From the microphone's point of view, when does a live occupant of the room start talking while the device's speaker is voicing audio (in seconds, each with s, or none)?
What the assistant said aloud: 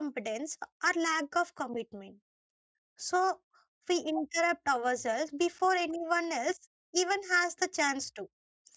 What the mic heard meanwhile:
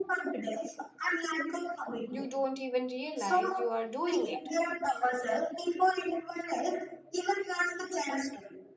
2.1 s